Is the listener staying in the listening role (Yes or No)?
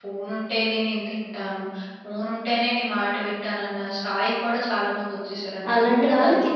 No